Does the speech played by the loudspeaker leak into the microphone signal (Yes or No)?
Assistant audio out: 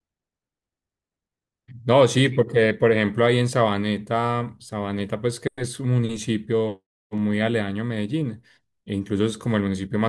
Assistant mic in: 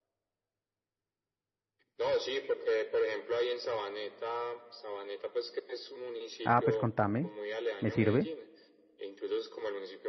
Yes